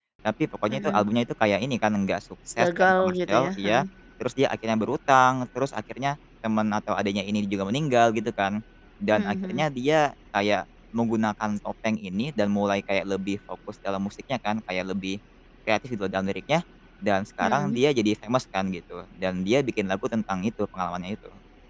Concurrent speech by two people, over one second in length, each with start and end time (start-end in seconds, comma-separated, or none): 2.6-3.8